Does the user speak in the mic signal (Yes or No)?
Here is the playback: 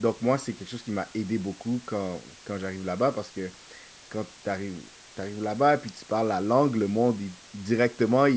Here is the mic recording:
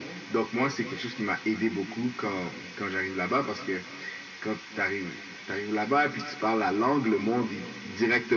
No